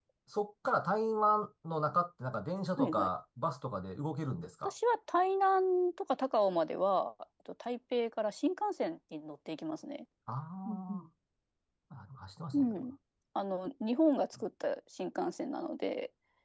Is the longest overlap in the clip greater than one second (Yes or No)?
No